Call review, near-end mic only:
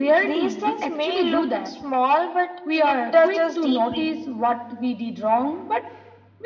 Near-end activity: none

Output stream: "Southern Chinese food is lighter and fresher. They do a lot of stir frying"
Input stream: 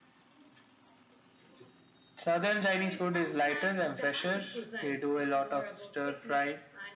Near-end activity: present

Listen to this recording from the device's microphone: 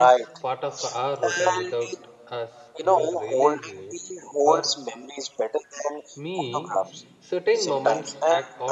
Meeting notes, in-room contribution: present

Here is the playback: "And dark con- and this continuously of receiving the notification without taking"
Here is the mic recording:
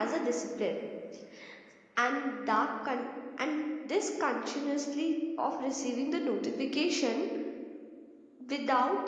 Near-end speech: none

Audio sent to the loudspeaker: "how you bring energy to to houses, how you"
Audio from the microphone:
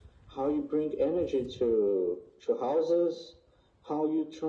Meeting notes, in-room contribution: none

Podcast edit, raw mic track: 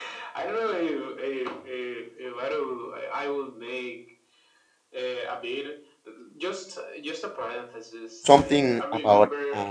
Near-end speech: present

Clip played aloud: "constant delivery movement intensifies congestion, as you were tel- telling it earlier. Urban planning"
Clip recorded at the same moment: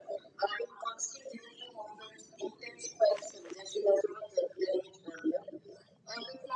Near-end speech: none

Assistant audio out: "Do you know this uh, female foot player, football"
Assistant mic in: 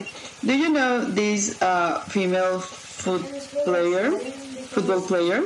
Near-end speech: present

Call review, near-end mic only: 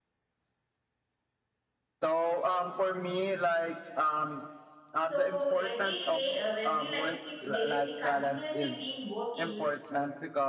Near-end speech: present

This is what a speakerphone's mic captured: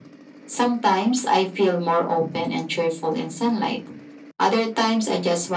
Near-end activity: none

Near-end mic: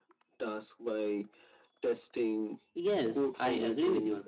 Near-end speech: present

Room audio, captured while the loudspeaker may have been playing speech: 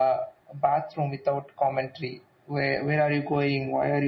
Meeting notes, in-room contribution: none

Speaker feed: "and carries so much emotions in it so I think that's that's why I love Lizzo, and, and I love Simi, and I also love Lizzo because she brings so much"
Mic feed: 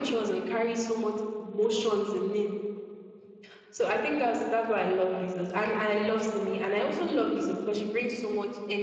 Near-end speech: none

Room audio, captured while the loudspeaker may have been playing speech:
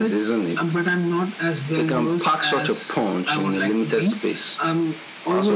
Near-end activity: none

